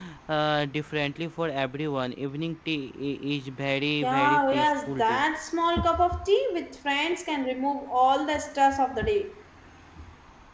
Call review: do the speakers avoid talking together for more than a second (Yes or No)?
No